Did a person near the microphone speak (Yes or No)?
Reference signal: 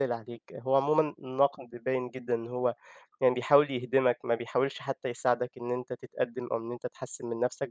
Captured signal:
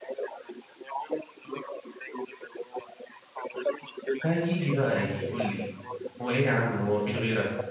Yes